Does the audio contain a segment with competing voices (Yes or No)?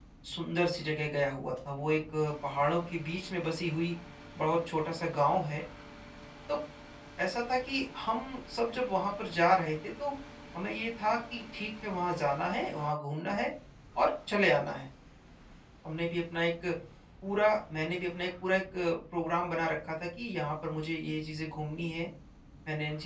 No